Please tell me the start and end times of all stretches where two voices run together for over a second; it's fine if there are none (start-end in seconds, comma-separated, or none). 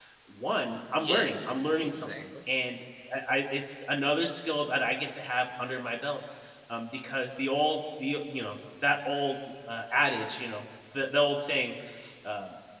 1.0-2.2